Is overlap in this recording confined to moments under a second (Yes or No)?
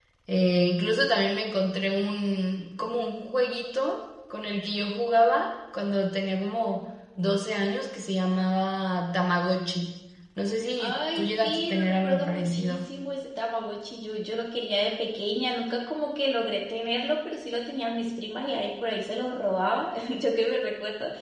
No